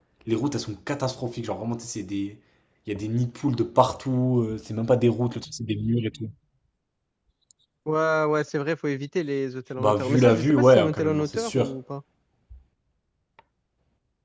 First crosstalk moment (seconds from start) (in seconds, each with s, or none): 9.8 s